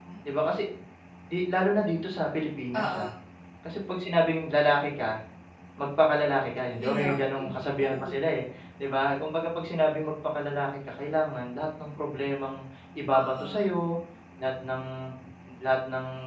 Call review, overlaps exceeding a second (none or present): present